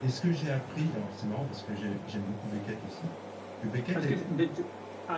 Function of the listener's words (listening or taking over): taking over